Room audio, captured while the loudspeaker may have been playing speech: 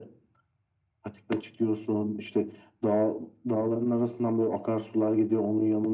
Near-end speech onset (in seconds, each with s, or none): none